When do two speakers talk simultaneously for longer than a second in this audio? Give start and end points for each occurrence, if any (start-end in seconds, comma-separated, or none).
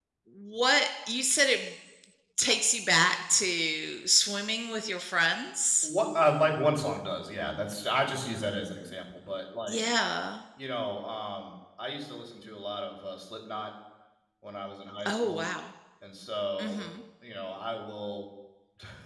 none